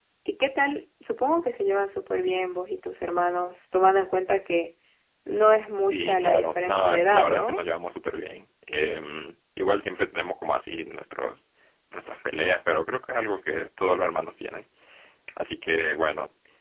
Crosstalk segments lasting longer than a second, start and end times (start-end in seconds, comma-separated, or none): 5.9-7.6